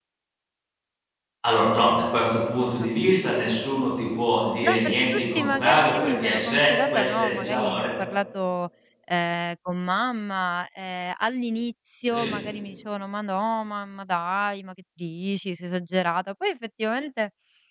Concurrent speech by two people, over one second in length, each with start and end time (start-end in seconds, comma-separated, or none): 4.6-7.9